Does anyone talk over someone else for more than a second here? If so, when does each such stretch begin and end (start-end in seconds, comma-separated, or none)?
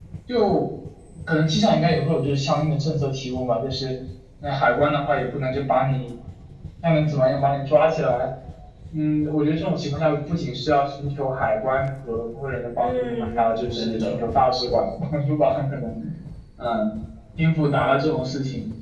12.8-14.2